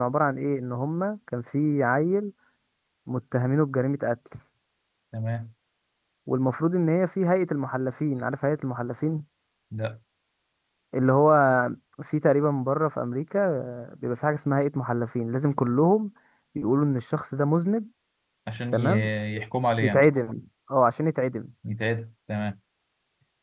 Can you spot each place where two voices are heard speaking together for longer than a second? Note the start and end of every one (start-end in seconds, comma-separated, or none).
none